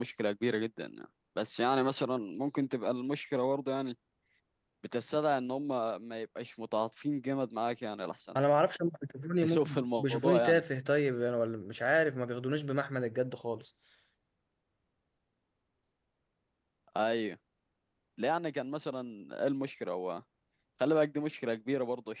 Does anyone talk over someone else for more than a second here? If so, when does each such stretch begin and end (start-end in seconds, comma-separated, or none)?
9.4-10.6